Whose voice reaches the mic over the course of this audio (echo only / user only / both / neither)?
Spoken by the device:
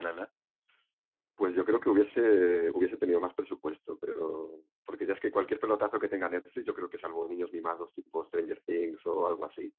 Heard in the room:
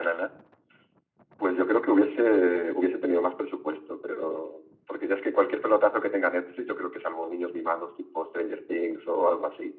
echo only